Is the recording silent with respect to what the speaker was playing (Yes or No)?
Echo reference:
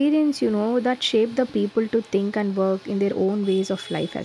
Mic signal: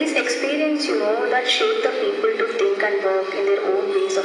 No